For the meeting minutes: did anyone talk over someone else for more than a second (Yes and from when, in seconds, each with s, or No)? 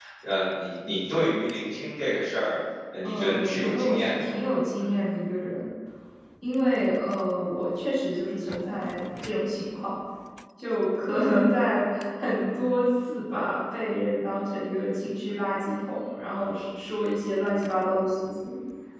Yes, from 3.0 s